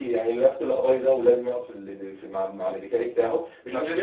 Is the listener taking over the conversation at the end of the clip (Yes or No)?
No